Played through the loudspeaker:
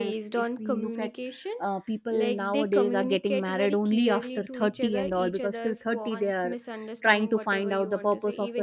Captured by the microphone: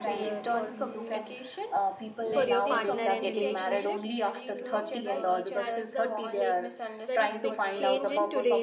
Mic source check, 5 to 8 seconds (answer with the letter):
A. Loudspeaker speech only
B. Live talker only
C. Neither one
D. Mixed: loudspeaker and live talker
D